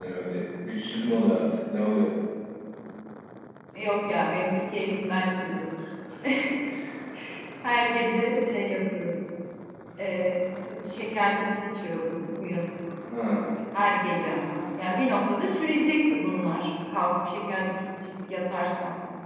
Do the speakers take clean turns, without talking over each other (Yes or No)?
Yes